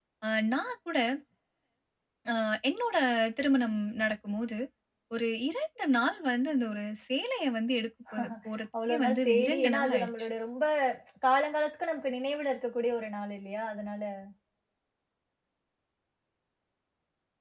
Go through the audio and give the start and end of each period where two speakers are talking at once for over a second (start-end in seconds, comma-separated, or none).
8.9-10.3